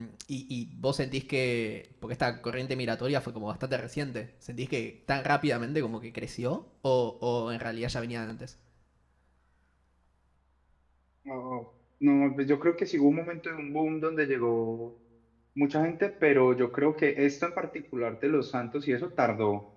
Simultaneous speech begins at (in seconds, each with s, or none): none